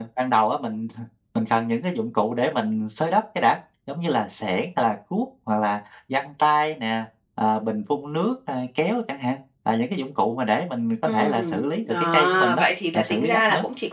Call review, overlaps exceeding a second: present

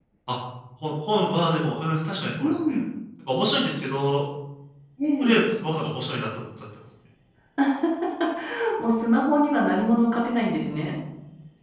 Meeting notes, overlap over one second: none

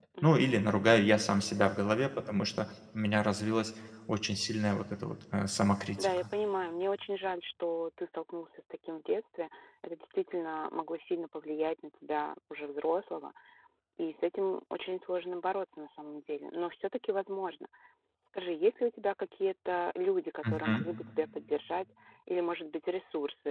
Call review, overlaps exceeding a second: none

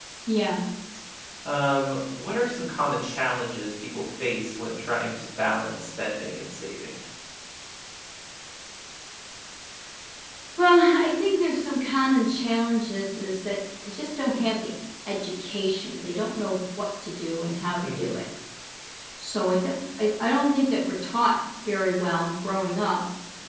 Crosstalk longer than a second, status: none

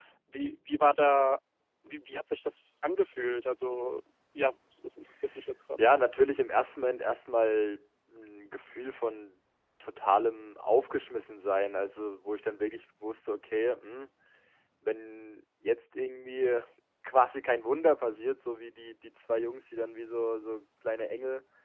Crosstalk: none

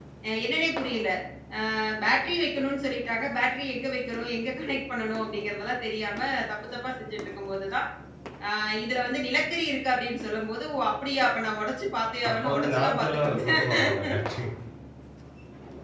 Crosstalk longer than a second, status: present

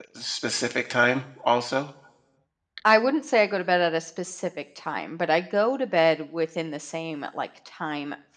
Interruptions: none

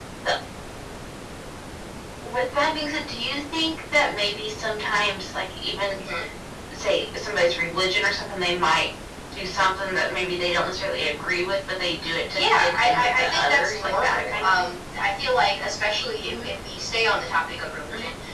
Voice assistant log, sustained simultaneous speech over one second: present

